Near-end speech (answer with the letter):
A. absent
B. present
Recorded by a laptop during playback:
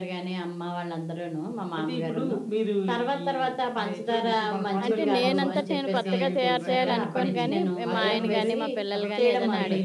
B